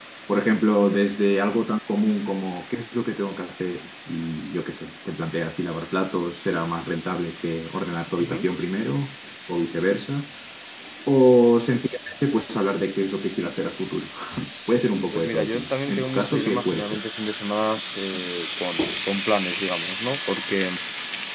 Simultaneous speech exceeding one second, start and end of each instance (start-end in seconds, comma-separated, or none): 15.1-17.0